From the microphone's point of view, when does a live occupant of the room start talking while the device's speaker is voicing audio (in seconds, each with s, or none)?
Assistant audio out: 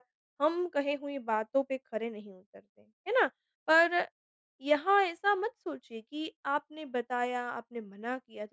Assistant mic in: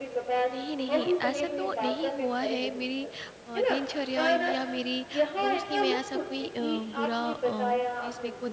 0.5 s